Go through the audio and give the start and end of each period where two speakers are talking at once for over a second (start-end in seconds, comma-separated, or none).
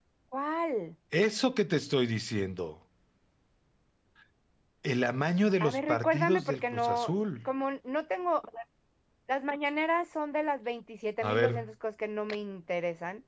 5.6-7.5